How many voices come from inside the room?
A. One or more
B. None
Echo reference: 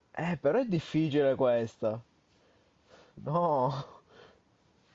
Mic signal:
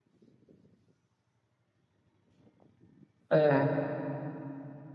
A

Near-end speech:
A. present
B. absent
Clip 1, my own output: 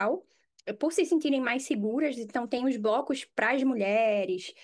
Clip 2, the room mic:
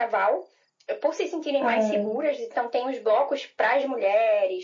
A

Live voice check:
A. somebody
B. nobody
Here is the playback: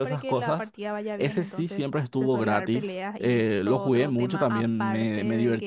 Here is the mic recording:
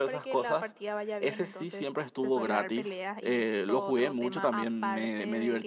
B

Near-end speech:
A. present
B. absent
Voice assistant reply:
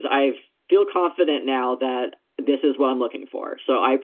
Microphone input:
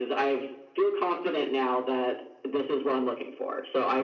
B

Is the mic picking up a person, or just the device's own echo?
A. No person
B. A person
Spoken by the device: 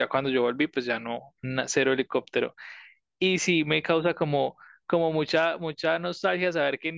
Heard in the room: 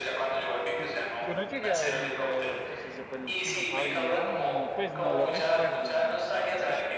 B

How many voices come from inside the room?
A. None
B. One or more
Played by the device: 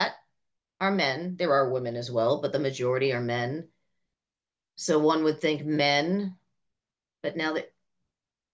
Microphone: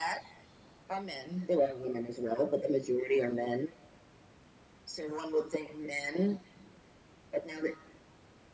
A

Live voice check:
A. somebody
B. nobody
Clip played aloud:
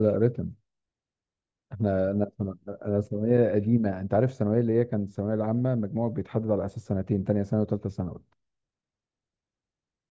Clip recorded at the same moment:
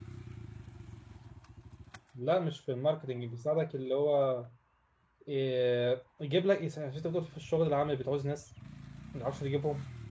A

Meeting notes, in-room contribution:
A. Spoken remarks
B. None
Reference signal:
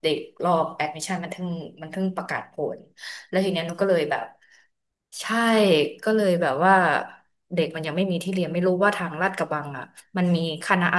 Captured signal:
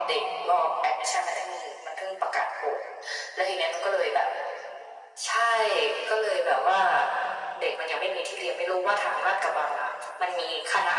B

